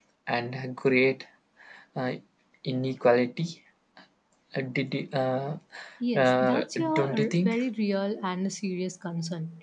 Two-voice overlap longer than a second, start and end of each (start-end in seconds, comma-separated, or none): 6.2-7.6